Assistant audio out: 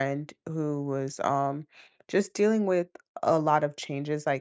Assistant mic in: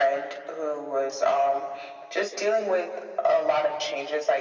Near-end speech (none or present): none